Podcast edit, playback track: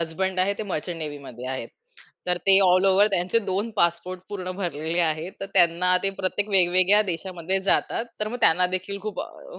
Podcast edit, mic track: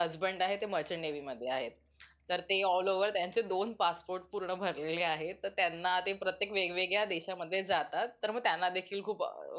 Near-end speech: none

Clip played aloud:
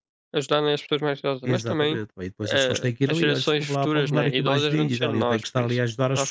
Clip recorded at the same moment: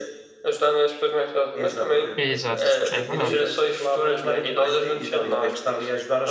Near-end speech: present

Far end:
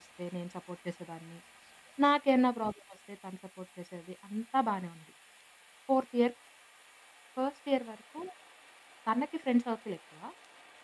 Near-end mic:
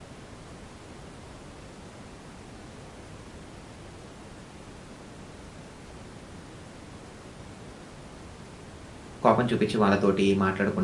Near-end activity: present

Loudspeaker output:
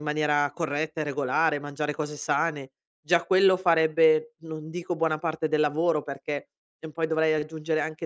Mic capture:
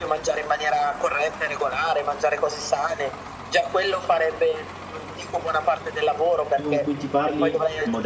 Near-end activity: present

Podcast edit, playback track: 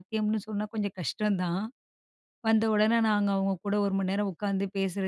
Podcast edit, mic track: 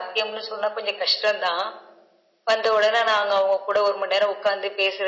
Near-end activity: none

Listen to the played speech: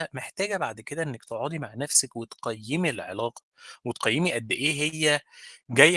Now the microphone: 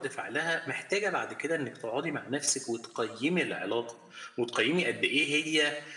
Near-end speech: none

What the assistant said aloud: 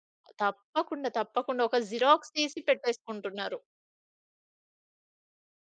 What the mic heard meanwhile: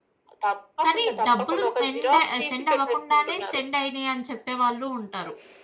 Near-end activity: present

